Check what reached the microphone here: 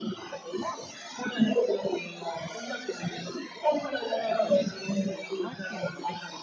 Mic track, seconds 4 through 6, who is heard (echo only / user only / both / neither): both